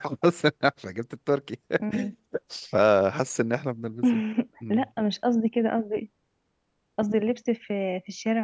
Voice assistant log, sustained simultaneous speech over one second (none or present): none